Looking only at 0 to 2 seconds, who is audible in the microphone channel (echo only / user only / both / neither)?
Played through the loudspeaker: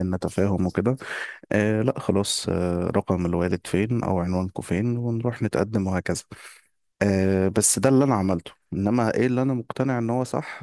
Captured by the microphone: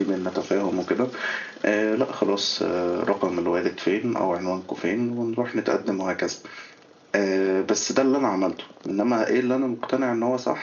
echo only